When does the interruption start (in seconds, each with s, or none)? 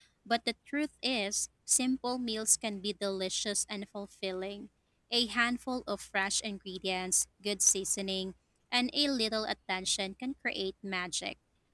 none